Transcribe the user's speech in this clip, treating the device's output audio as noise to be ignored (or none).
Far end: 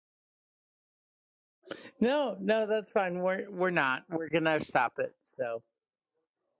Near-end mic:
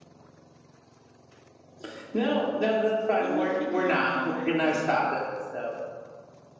let me figure out how to.